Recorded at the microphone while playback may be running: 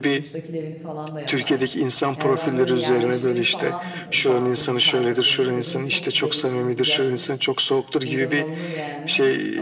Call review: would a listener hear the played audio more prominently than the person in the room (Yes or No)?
Yes